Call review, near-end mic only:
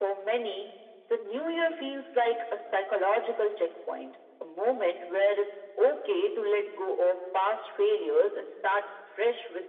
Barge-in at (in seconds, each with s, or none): none